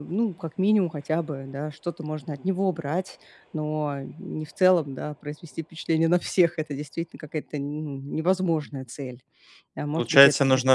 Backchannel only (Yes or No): No